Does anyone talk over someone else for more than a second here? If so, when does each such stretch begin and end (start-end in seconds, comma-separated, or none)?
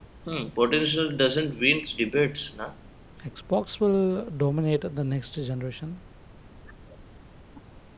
none